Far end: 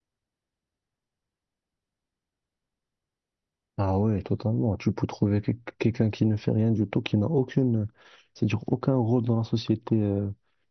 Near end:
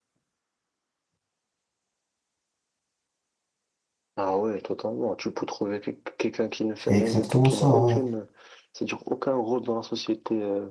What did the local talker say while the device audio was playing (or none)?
C'est exactement ça, ouais.